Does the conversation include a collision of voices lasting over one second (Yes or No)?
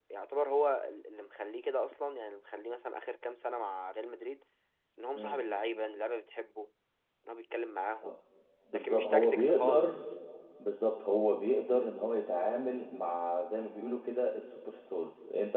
Yes